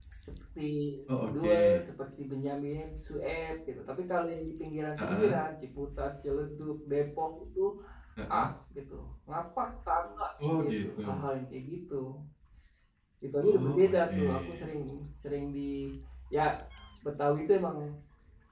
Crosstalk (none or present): present